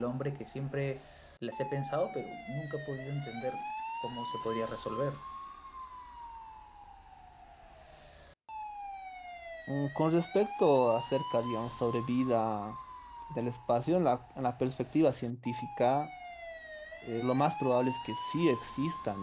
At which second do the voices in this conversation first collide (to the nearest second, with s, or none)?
none